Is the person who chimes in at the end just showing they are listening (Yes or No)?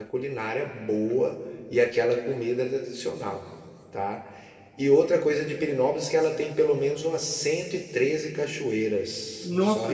Yes